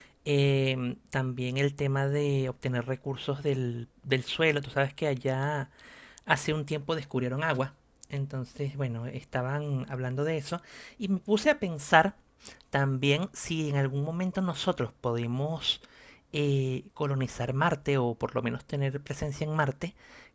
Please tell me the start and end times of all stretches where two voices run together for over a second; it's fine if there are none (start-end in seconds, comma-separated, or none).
none